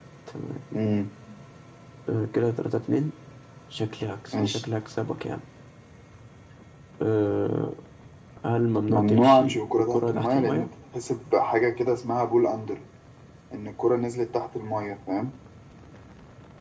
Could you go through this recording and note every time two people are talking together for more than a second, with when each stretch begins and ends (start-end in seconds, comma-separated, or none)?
8.9-10.7